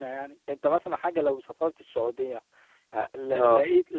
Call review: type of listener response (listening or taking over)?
listening